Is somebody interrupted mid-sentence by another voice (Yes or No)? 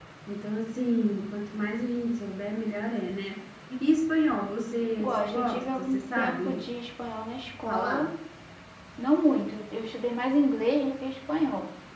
Yes